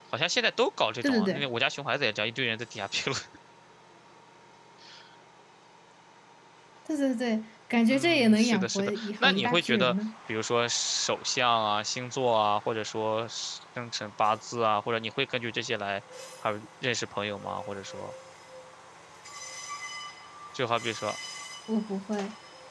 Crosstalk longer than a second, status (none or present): present